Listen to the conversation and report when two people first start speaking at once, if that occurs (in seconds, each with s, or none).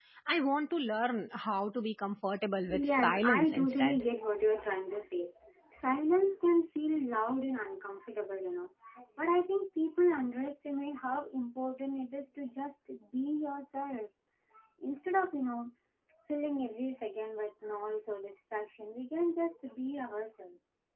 2.6 s